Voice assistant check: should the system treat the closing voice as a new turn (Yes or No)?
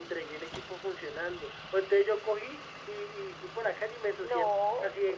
No